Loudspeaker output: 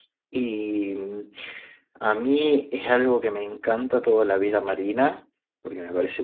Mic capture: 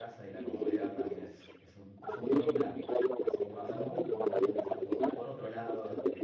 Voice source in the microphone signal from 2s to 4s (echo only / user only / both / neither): both